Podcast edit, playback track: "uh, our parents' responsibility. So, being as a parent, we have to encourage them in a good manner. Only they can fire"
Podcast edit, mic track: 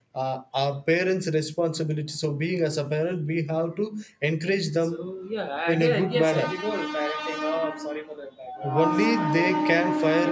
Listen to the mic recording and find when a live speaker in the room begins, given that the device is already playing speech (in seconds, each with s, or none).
4.8 s